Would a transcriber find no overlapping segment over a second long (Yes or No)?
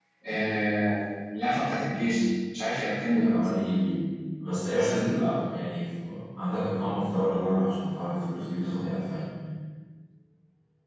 Yes